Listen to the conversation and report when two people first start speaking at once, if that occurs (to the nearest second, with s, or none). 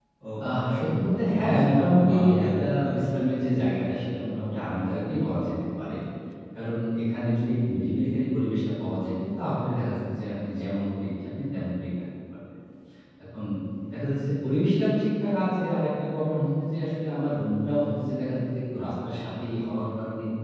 1 s